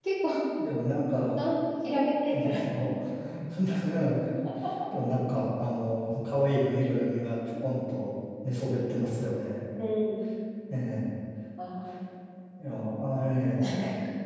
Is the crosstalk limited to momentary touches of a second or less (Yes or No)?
Yes